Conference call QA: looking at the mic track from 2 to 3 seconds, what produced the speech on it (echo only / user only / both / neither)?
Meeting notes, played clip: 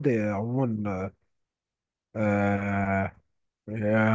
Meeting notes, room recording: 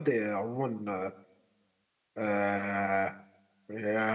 echo only